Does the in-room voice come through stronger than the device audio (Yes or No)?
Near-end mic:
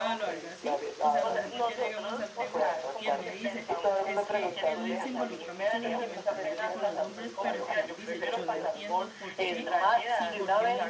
No